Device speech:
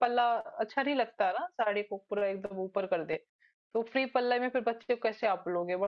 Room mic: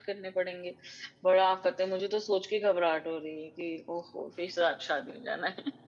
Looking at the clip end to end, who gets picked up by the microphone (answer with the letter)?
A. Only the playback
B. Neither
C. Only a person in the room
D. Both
C